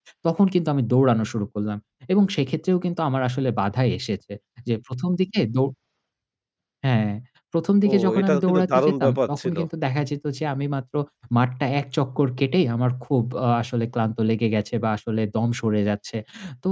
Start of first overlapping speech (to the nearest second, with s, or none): 8 s